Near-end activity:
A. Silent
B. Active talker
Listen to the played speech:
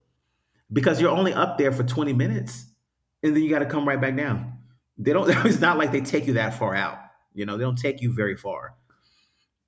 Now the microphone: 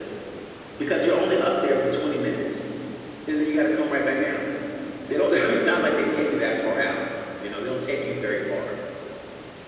A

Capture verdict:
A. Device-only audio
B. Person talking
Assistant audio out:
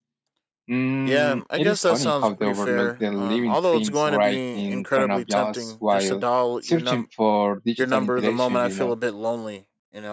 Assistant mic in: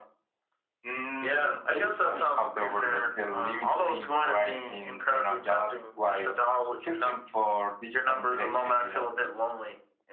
A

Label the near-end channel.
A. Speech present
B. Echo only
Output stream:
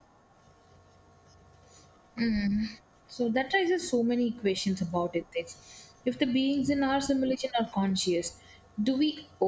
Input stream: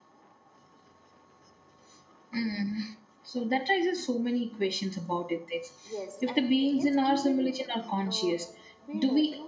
A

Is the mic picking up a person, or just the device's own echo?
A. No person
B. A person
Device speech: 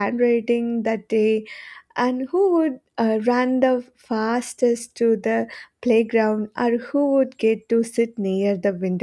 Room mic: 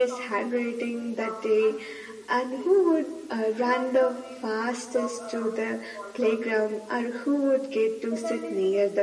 B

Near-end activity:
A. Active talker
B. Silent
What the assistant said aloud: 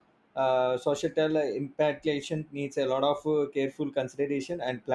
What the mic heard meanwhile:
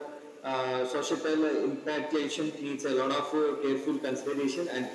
B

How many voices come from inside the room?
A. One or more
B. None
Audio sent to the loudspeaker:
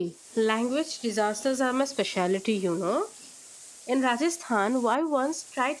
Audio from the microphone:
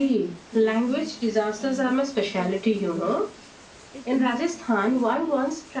A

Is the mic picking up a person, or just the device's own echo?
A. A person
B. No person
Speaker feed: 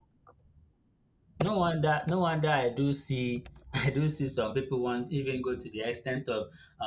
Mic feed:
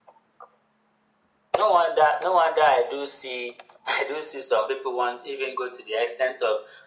B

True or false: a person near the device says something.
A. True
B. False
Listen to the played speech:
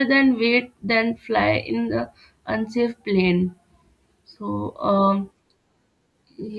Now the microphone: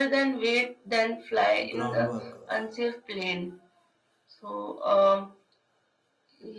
A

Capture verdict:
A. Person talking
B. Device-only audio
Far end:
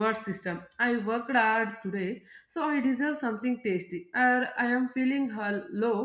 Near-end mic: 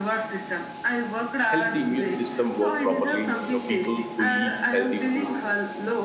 A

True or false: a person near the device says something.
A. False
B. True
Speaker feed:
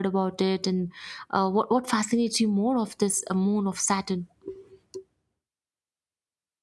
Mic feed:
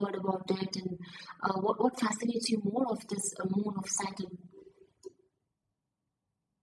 A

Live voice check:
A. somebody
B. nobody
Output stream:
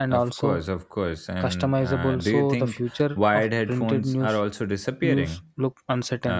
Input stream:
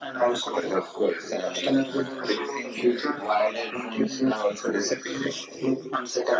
B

